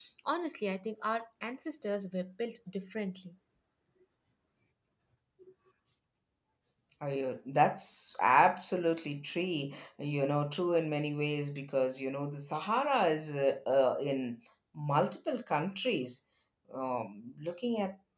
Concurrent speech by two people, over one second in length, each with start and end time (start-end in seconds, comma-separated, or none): none